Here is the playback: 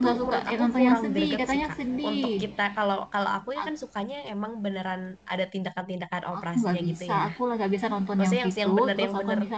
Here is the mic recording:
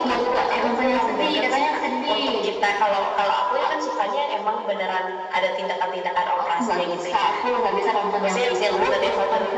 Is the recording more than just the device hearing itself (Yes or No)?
No